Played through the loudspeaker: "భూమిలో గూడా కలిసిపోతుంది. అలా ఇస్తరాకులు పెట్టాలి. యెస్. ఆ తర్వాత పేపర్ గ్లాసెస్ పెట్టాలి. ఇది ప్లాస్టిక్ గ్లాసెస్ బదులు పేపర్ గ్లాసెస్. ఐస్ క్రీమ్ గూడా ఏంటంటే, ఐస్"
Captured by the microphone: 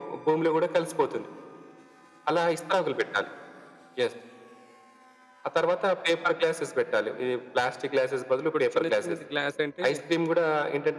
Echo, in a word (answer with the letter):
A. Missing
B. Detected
B